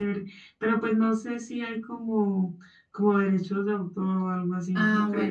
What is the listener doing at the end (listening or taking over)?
taking over